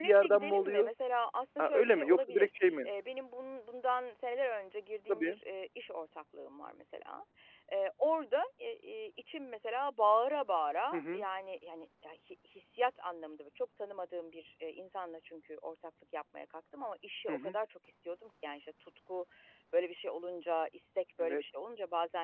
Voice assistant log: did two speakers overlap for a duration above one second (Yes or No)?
Yes